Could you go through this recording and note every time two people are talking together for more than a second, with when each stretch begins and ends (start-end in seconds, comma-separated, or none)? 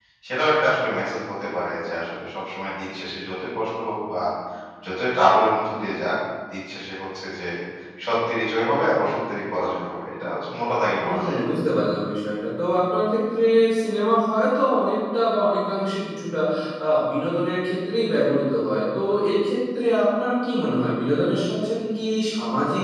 none